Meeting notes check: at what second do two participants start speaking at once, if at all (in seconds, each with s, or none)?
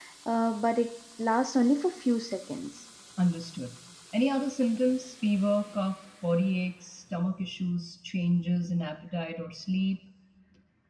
none